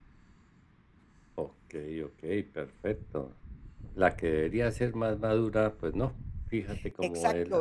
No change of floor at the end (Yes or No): No